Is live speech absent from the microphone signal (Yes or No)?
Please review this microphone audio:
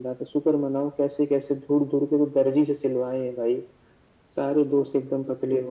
Yes